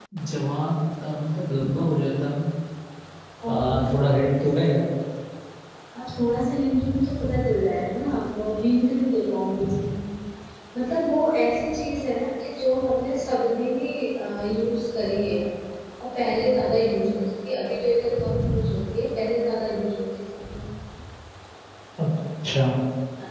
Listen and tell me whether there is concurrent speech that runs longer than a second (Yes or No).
No